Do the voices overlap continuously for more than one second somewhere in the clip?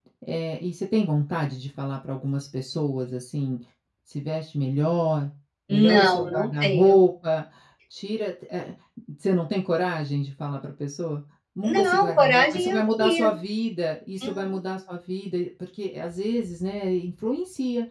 Yes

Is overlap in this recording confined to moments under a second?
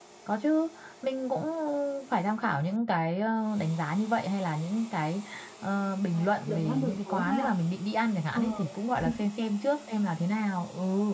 No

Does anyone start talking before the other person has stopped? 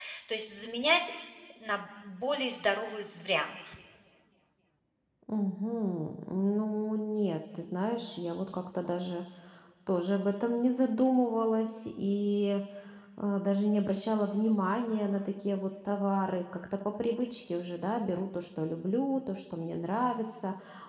No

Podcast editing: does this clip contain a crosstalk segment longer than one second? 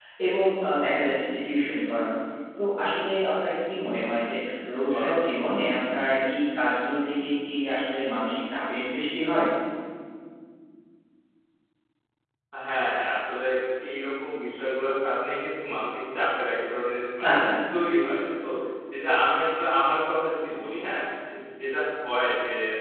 No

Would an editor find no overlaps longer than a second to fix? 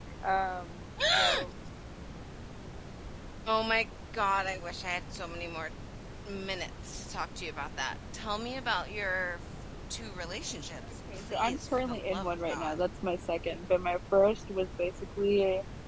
No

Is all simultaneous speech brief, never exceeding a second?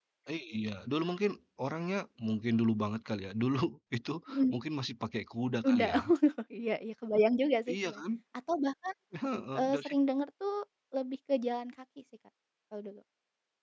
Yes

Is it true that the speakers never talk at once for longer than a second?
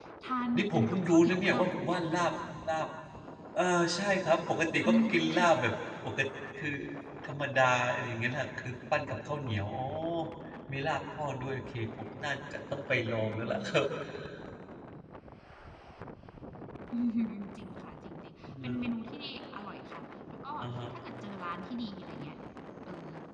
No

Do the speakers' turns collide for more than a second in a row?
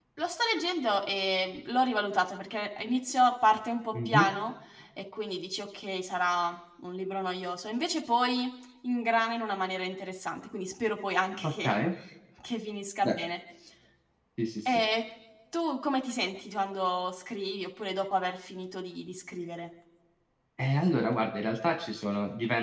No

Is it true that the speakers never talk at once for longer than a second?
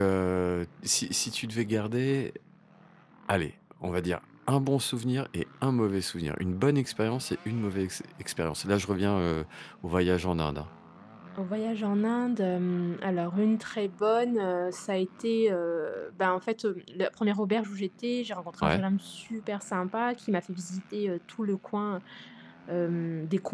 Yes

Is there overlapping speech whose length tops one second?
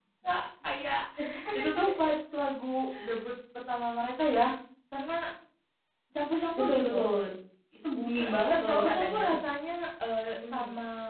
Yes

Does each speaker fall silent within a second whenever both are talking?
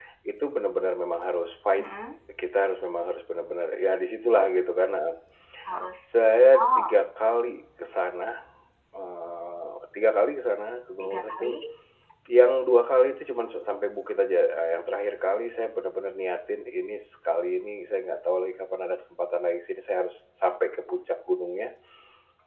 Yes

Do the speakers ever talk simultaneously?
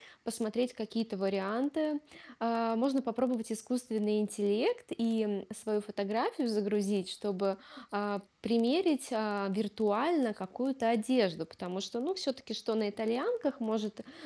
No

